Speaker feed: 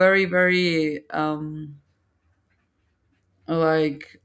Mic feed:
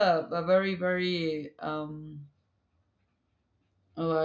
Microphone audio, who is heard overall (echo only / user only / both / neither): echo only